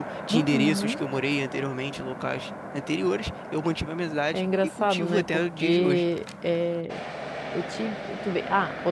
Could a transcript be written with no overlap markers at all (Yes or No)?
No